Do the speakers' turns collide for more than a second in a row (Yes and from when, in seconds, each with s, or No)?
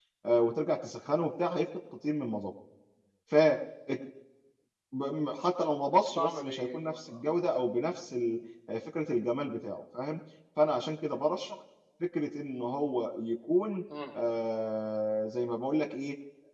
Yes, from 5.9 s